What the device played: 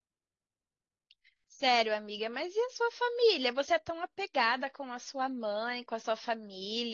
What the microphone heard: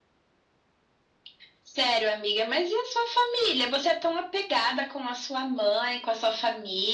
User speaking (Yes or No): No